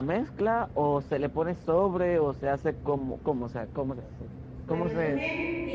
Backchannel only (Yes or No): No